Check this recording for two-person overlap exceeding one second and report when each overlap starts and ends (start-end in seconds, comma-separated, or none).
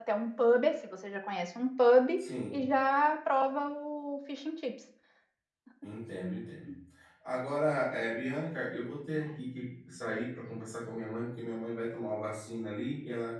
none